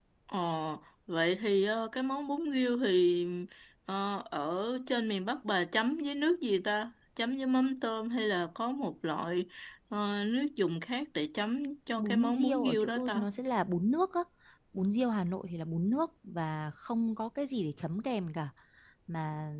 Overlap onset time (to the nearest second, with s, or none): 12 s